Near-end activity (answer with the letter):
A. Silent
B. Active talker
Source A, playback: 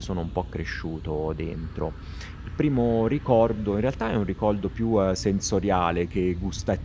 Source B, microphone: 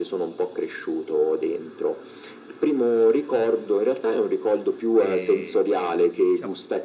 B